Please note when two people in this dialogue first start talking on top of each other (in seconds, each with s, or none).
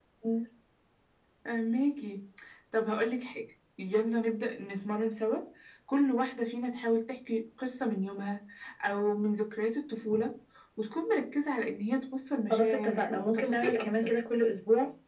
12.5 s